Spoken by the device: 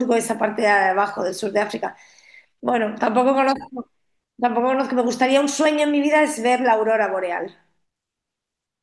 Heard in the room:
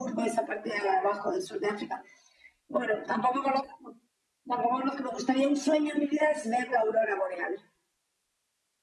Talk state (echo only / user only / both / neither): echo only